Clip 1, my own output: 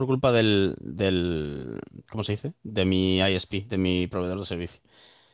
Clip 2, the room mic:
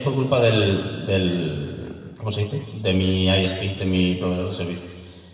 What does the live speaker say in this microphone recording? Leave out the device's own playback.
none

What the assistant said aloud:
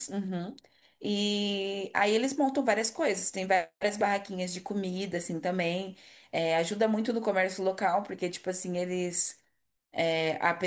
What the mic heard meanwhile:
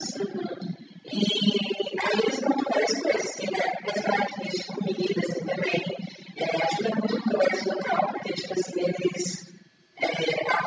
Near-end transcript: none

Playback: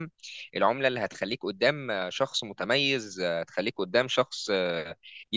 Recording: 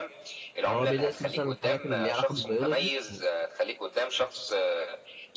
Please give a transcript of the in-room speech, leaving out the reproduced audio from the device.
فهو بيدرس مثلا الحاجات اللي ليها علاقه بالبيولوجي يعني

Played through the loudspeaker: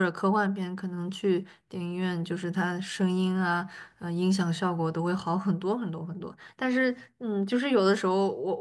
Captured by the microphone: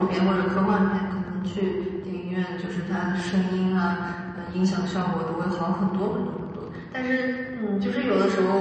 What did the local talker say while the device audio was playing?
none

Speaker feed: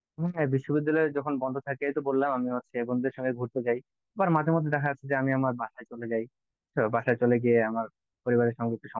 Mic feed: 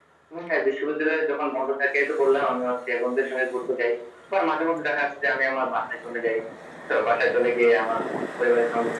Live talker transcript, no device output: none

